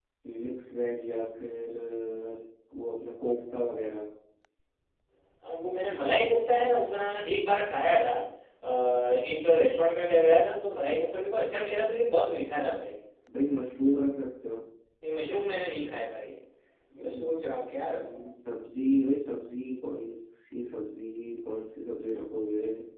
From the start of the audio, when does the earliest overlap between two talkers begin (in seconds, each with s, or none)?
17.0 s